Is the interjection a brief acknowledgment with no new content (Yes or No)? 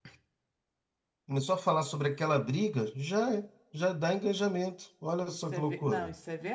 No